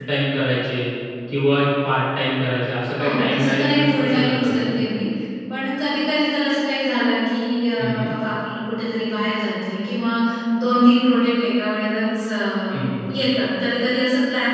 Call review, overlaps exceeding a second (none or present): present